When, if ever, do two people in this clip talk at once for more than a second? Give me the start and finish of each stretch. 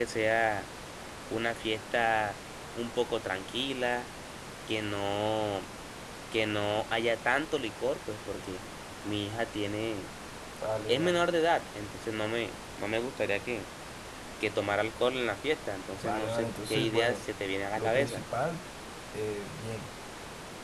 16.0-17.2

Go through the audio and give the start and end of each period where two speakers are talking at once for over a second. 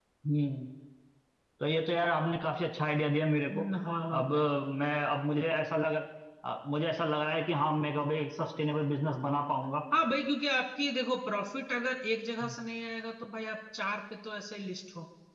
none

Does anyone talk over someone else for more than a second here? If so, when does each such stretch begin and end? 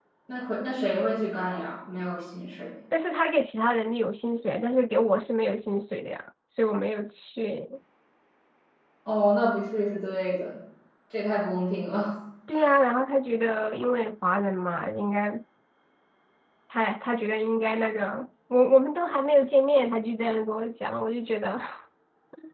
none

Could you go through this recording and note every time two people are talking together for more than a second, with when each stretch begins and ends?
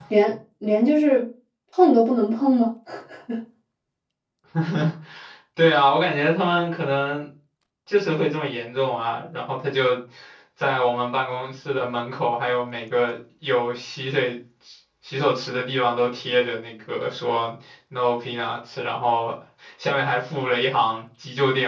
none

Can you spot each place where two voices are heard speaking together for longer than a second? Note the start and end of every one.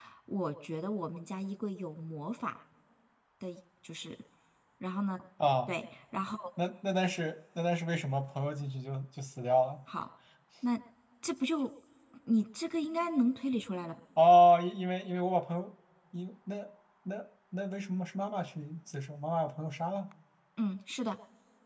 none

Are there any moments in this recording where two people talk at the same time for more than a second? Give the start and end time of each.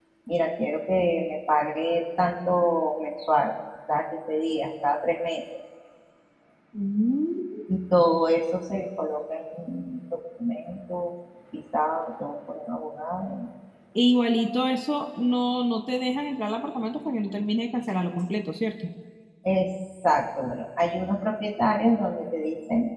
none

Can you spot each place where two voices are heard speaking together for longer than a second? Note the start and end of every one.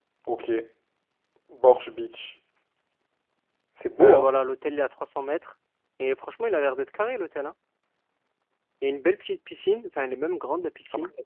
none

